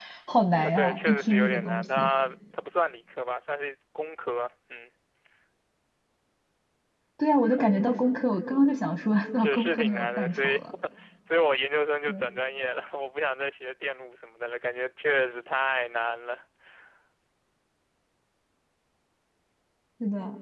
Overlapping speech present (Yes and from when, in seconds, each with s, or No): Yes, from 0.7 s